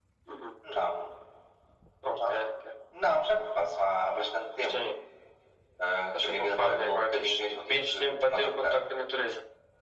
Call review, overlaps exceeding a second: present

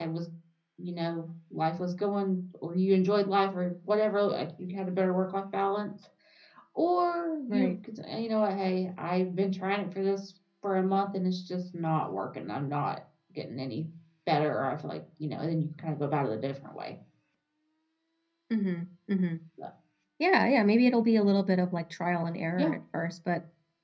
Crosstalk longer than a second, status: none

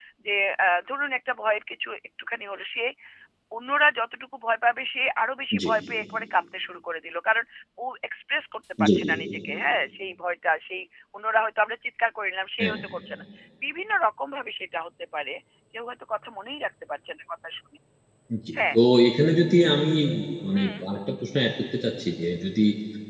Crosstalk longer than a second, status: none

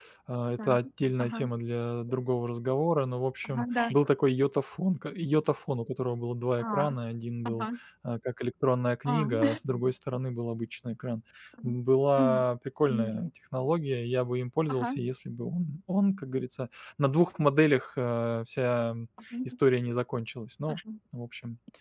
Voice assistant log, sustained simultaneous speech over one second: none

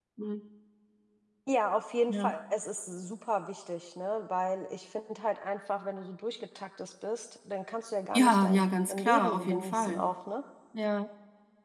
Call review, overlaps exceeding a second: present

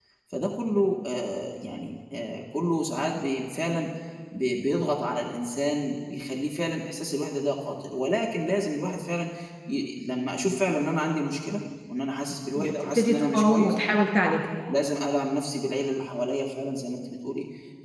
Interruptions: present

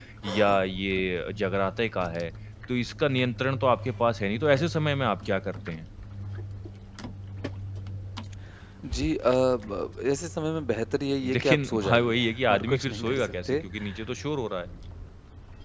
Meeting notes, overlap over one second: present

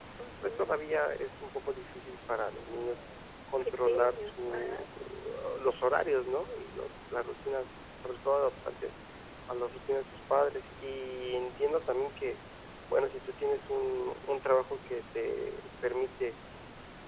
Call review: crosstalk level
present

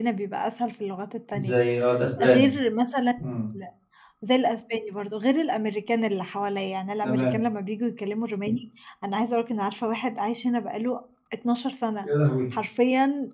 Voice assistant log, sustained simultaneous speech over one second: none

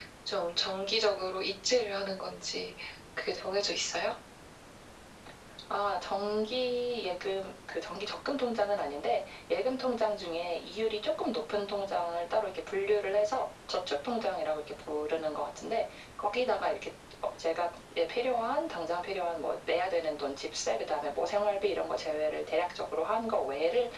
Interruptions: none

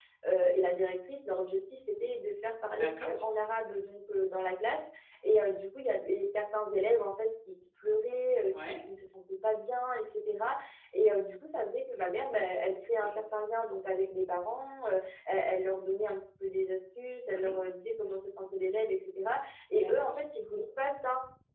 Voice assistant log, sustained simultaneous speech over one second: none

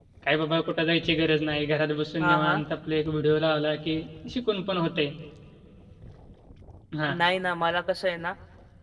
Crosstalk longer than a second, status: none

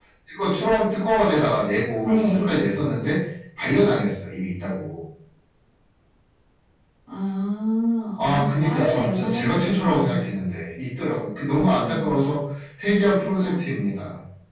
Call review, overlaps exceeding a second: present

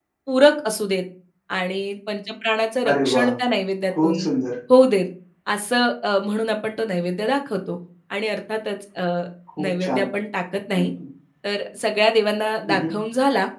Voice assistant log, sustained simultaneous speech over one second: none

